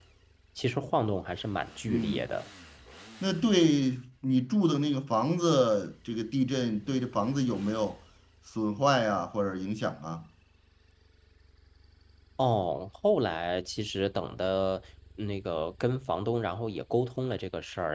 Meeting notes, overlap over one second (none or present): none